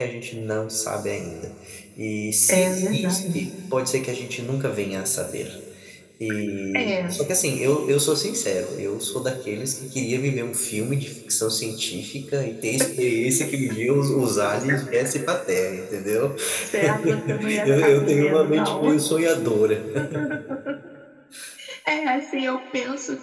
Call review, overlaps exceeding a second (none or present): present